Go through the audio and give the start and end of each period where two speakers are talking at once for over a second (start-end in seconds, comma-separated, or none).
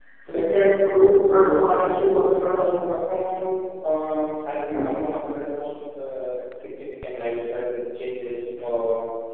1.2-2.9